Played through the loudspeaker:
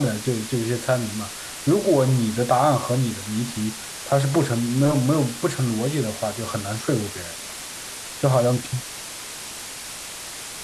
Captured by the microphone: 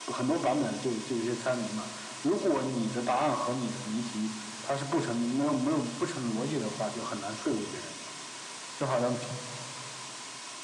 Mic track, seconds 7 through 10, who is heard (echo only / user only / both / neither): echo only